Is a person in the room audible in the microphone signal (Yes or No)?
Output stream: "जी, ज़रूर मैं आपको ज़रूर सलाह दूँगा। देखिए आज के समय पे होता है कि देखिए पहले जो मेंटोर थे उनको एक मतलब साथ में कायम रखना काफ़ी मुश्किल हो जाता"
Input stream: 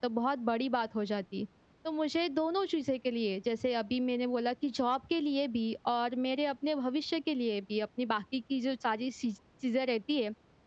Yes